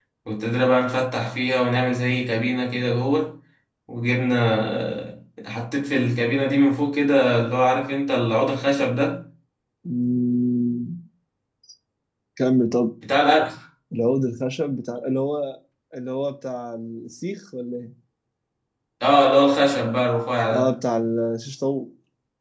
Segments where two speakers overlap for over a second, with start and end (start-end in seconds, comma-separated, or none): none